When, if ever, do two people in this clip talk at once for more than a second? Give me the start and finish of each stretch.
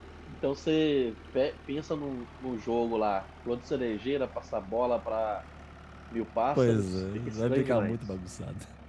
6.6-8.0

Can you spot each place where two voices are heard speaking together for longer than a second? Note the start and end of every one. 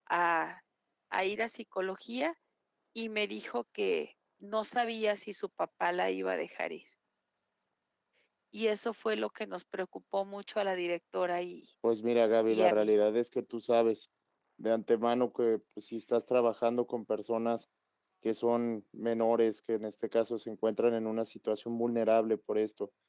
none

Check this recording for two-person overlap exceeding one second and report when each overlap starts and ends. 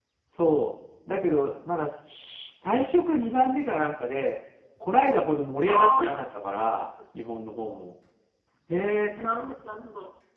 none

